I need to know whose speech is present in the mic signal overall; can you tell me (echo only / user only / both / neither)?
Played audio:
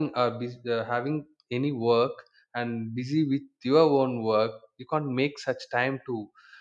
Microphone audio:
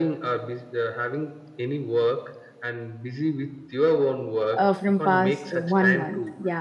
both